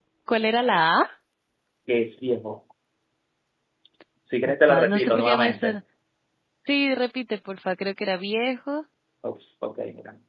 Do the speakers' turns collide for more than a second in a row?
Yes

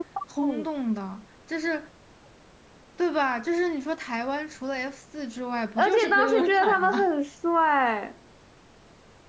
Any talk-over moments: Yes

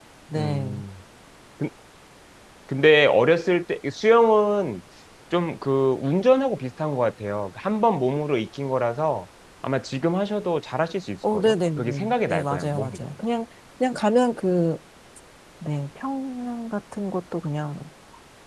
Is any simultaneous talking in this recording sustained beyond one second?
Yes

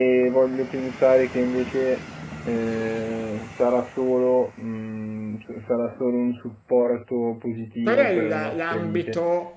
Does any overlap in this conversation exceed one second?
Yes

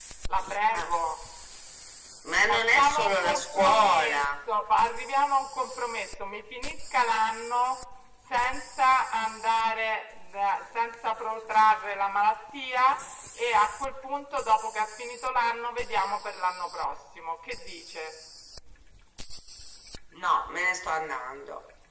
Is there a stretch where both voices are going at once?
Yes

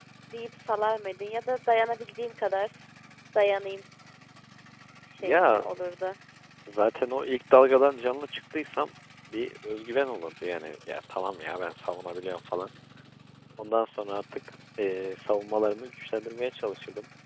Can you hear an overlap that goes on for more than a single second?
No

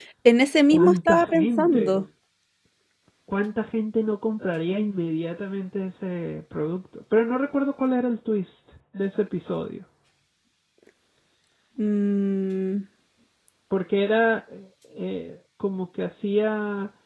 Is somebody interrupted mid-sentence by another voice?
Yes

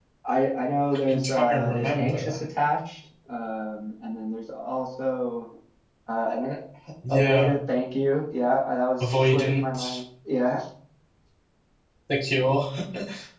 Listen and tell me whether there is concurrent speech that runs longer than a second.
Yes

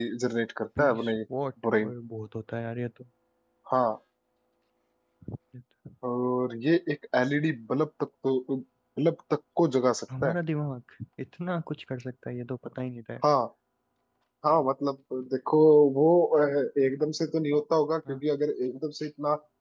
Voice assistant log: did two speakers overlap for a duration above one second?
No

